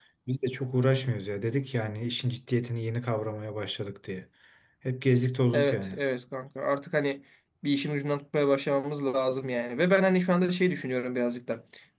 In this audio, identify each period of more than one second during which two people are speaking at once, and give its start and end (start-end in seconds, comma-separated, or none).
none